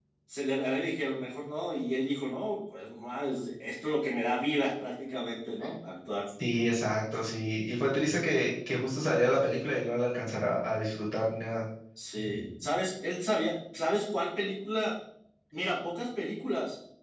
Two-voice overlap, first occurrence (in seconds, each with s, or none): none